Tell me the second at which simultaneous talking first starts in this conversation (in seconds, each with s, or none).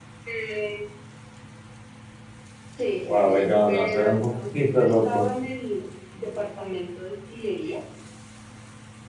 3.1 s